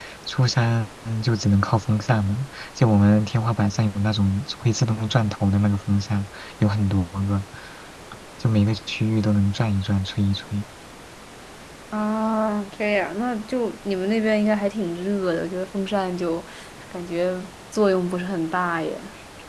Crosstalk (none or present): none